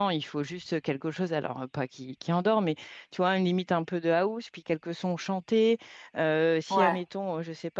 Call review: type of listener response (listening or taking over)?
listening